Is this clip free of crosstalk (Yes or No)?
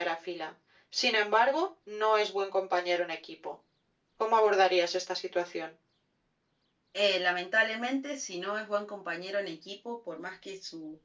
Yes